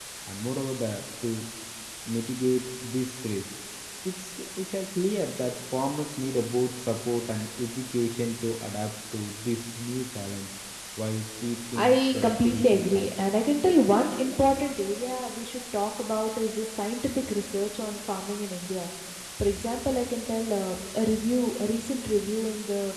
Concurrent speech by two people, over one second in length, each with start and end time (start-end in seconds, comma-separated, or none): 11.8-13.1